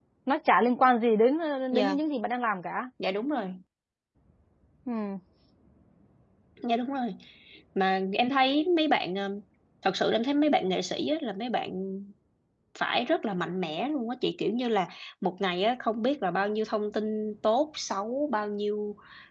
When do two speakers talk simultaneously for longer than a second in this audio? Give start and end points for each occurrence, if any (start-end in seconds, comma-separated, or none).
none